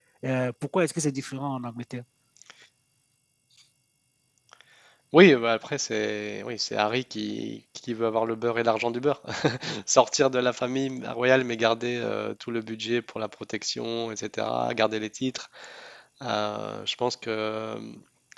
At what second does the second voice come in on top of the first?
none

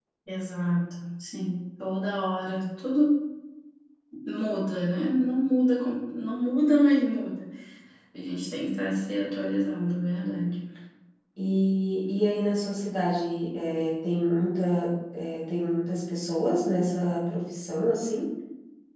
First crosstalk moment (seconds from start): none

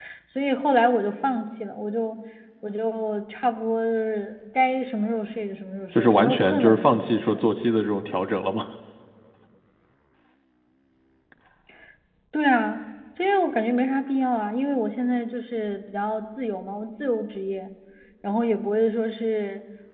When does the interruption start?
6.0 s

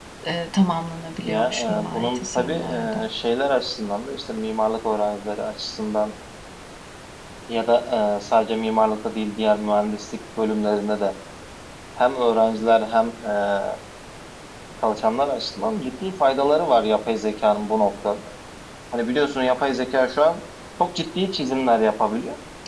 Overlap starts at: 1.2 s

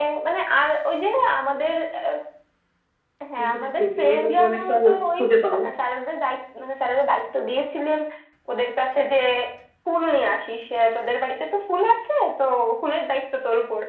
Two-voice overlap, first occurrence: 3.5 s

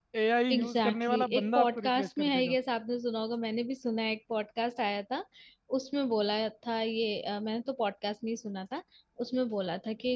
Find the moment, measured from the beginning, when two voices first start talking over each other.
0.5 s

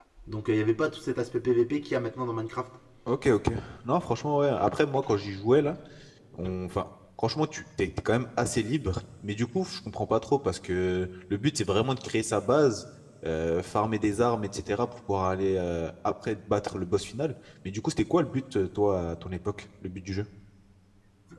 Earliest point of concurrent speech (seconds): none

